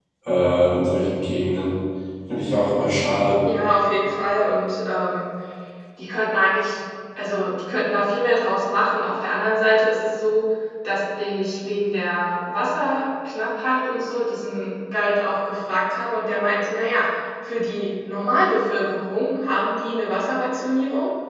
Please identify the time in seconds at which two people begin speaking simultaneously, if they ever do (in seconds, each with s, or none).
none